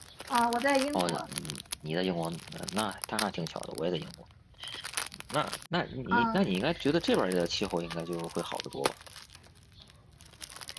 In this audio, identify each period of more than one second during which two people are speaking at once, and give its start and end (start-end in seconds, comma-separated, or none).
none